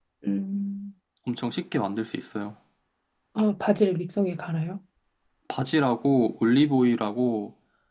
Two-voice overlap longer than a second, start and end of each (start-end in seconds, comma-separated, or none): none